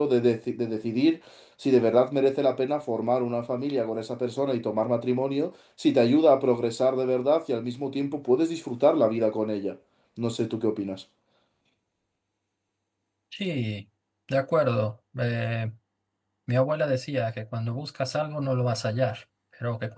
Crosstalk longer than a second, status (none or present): none